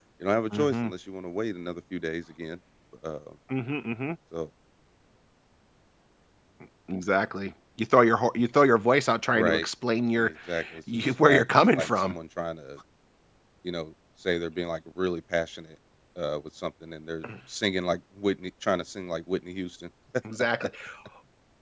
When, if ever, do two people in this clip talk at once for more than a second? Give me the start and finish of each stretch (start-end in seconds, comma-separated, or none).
10.9-12.1